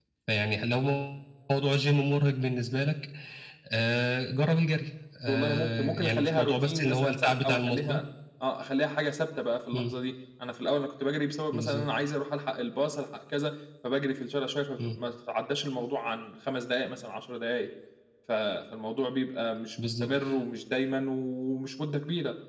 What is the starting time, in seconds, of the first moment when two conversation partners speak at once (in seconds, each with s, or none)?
5.3 s